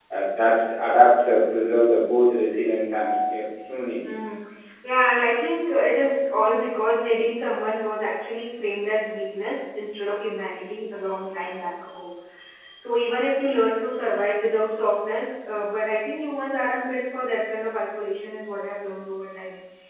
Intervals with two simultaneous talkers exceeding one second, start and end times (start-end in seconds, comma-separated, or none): none